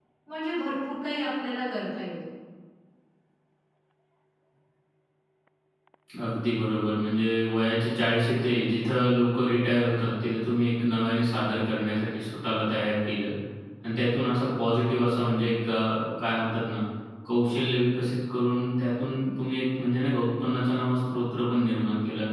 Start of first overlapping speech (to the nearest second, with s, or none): none